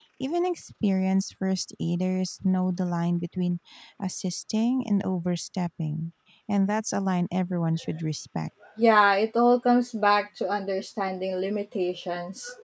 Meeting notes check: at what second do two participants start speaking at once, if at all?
none

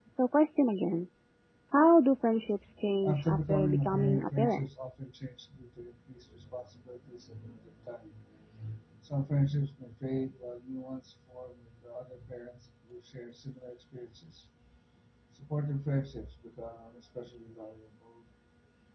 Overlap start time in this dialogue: 3.0 s

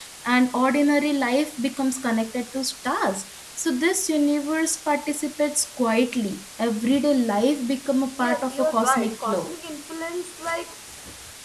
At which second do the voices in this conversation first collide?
8.2 s

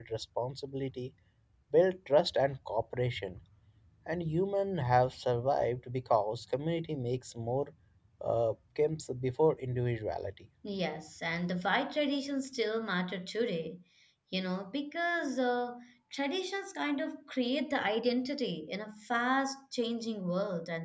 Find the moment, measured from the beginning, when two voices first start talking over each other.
none

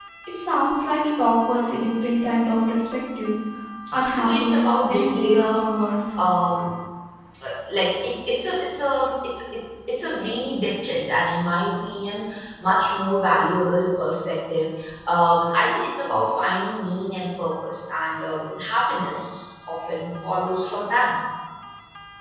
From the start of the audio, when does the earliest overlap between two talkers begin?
4.1 s

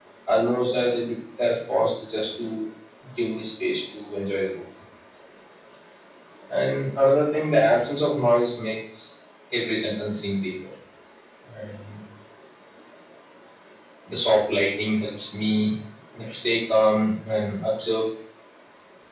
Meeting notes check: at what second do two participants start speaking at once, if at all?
none

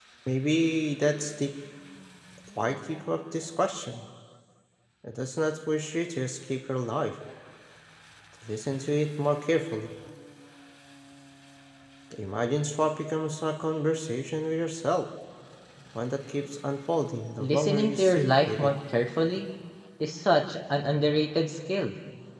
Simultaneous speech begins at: 17.4 s

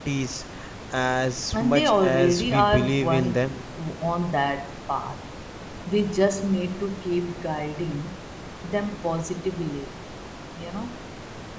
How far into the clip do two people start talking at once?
1.5 s

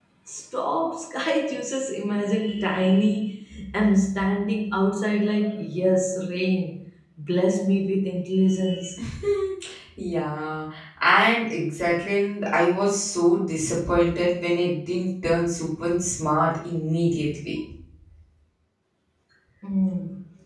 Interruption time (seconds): none

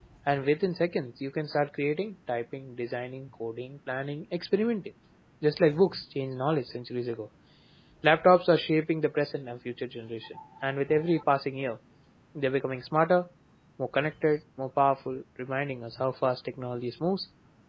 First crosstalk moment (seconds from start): none

